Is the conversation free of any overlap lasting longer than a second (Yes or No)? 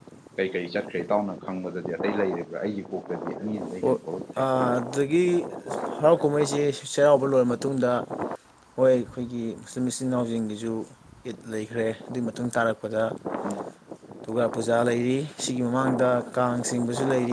Yes